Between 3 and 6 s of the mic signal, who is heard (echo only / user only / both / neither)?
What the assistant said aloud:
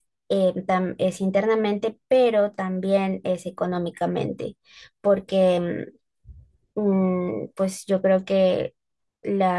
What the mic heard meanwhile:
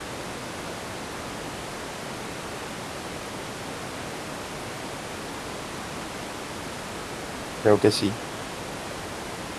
neither